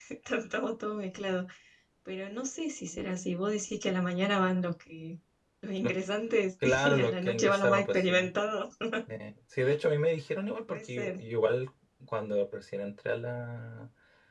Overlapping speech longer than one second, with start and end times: 6.7-8.3

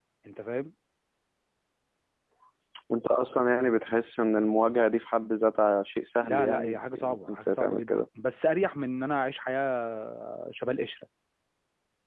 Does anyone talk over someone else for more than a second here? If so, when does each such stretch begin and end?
6.2-8.1

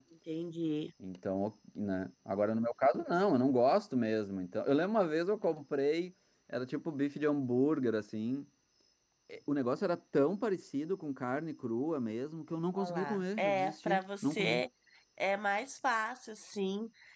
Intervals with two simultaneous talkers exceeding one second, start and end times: 12.8-14.6

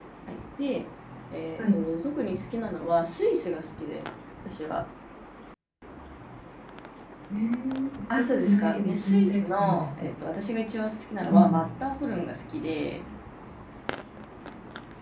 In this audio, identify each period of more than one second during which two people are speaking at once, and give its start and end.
8.2-10.1

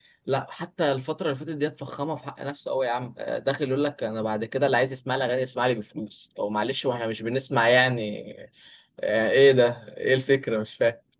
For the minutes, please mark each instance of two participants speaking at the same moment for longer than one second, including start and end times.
none

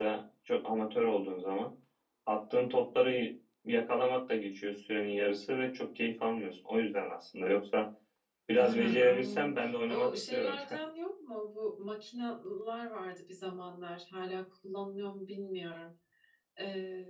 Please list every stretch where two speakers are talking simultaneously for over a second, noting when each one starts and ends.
8.6-10.6

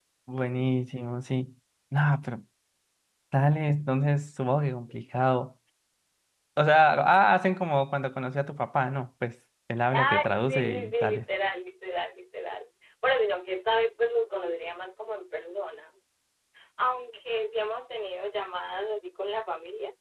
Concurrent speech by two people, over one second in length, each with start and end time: 10.0-11.2

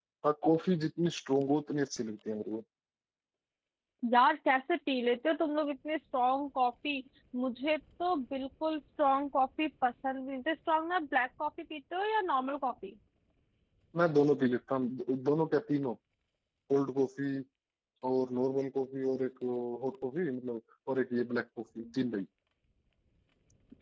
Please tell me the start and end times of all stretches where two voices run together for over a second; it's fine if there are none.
none

